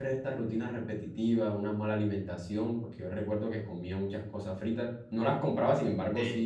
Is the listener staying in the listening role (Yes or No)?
Yes